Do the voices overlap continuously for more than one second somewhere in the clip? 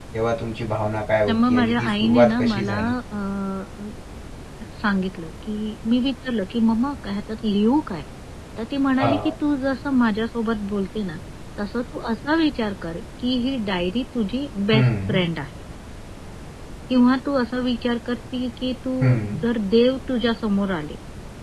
Yes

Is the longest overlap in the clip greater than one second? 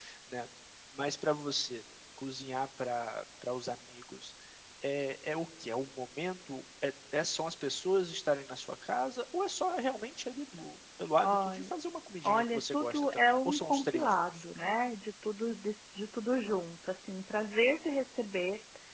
Yes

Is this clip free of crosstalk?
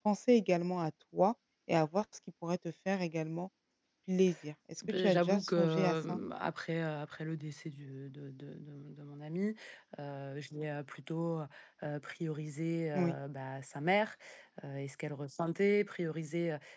No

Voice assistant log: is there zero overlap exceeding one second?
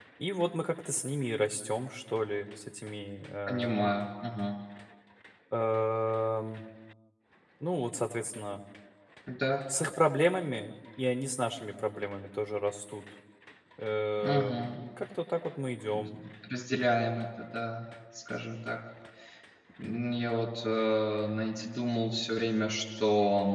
Yes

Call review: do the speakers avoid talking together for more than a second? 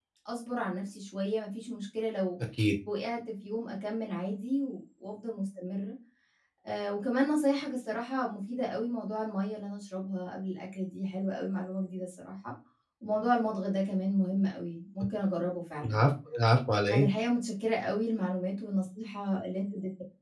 Yes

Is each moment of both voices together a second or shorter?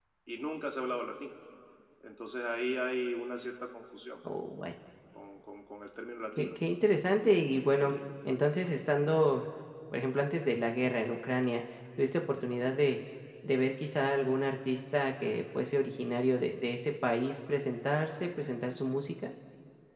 Yes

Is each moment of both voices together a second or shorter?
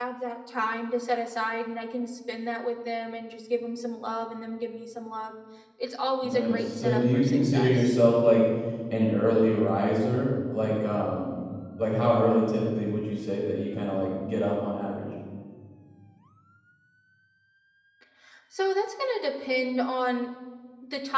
No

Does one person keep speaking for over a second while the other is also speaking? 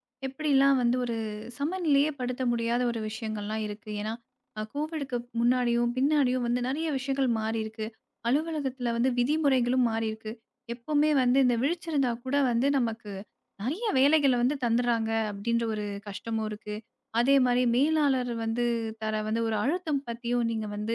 No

